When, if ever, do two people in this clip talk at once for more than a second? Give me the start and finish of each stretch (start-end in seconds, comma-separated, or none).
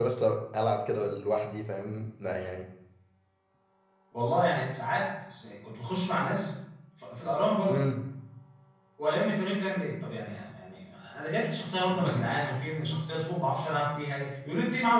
none